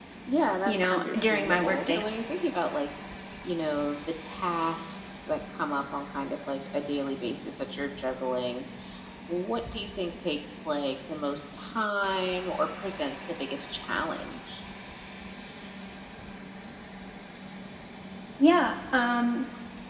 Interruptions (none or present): present